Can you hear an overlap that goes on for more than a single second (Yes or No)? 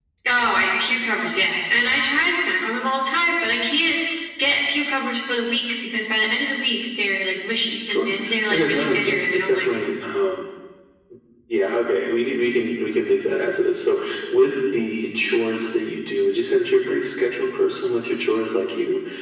Yes